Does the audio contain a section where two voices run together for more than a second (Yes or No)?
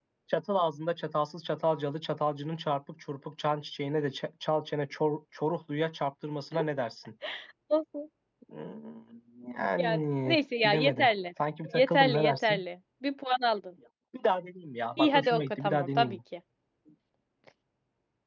Yes